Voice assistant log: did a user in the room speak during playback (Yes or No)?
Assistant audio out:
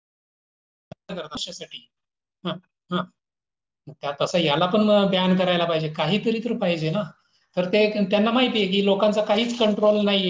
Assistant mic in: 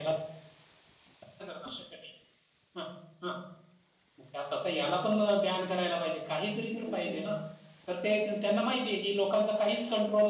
Yes